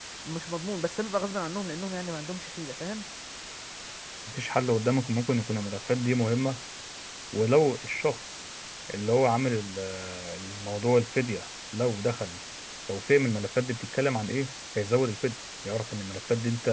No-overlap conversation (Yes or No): Yes